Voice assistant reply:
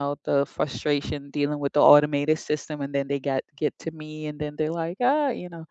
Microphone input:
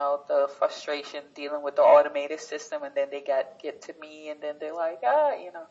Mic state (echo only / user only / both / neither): echo only